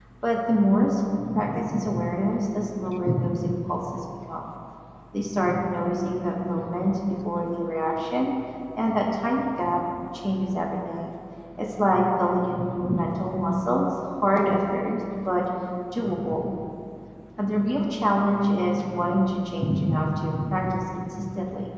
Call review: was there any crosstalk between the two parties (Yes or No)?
No